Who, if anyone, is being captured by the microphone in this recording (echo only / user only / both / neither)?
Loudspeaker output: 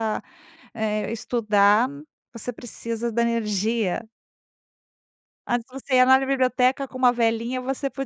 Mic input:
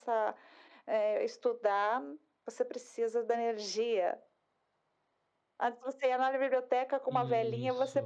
both